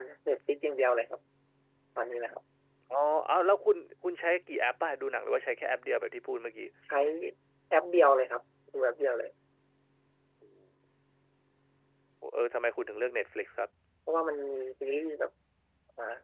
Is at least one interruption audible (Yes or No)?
No